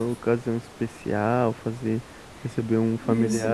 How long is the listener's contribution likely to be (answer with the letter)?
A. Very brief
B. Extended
A